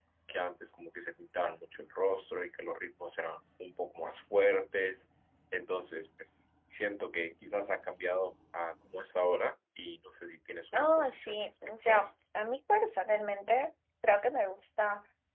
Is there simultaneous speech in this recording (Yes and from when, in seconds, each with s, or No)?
Yes, from 10.7 s